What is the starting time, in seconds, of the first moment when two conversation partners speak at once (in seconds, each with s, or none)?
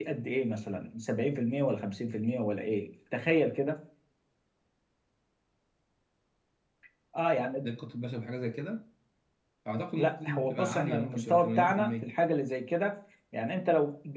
10.0 s